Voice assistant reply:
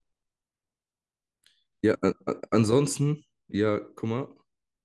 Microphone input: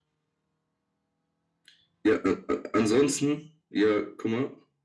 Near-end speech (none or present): none